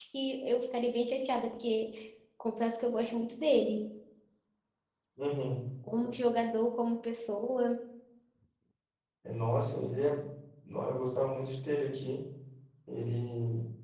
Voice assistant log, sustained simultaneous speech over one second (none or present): none